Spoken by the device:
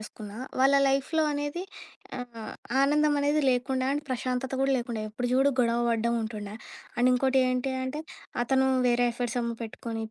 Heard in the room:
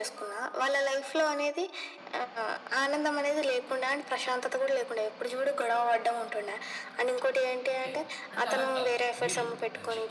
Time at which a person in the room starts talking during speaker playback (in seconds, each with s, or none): 7.7 s